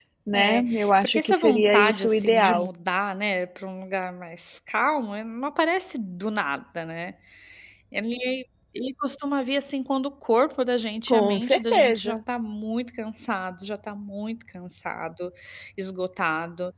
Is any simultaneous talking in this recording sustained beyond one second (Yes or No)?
Yes